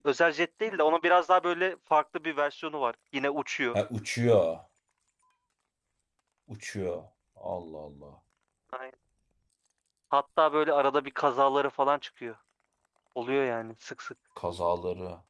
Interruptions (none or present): none